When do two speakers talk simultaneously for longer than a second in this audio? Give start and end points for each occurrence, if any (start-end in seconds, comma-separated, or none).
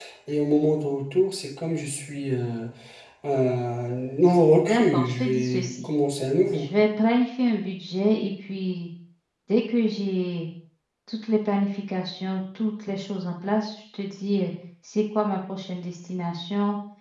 4.6-5.9